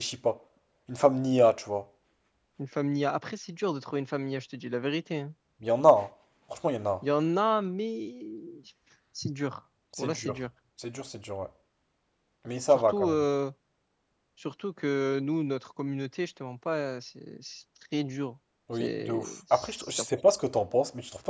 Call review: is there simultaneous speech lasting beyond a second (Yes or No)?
Yes